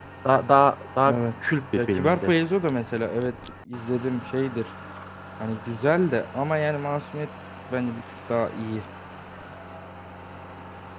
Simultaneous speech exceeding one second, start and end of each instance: 1.0-2.3

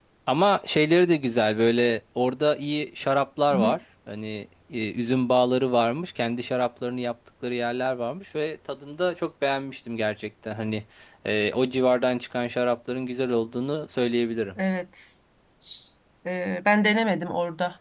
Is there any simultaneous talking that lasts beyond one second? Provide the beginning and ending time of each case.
none

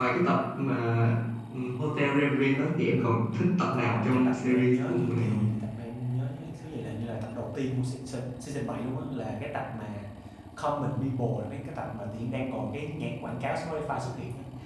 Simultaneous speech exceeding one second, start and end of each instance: 3.7-5.4

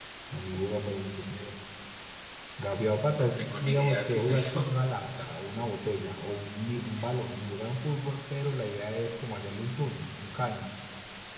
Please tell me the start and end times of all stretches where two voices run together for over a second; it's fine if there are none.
3.2-4.7

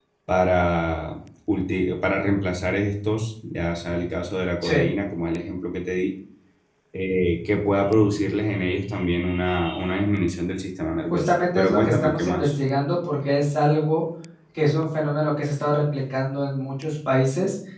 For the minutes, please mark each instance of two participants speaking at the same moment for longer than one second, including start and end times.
11.1-12.5

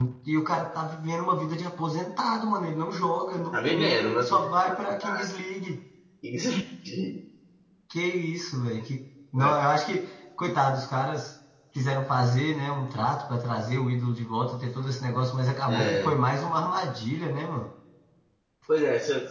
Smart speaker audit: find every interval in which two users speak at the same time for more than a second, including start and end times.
3.5-5.3

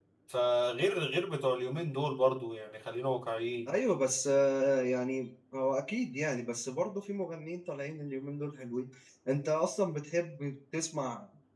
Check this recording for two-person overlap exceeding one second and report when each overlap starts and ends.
none

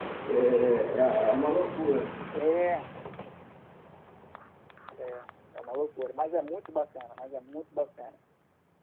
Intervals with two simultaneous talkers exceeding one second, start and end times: none

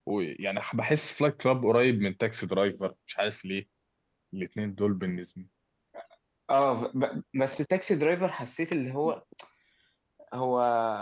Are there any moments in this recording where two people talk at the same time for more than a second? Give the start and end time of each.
none

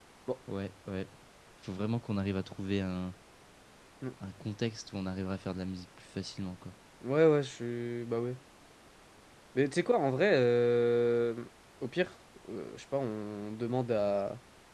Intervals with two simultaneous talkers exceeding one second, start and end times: none

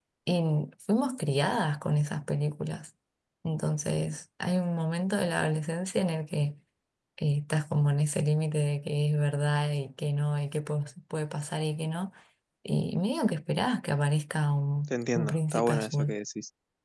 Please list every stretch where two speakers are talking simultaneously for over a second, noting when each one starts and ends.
14.9-16.1

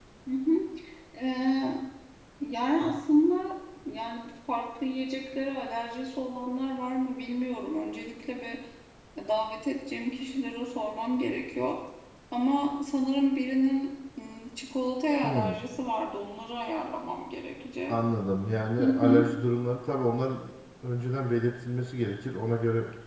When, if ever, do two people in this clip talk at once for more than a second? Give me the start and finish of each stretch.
none

